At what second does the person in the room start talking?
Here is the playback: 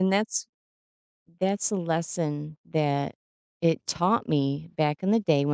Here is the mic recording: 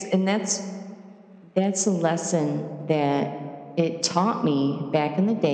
none

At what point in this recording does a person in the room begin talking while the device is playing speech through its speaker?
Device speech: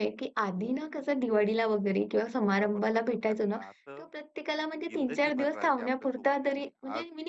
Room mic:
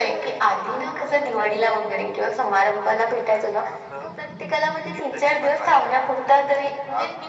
none

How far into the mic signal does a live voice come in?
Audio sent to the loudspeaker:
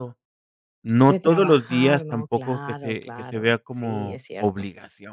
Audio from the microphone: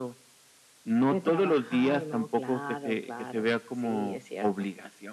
none

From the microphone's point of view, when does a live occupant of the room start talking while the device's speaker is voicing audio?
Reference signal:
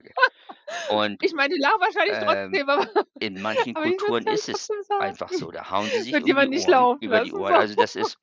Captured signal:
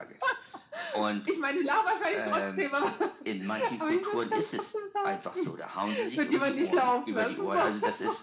none

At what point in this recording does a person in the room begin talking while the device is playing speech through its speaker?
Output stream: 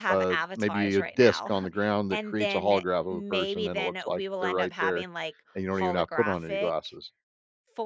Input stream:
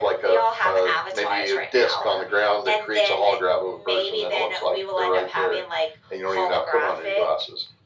none

